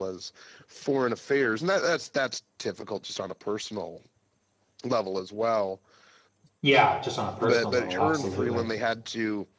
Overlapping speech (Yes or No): Yes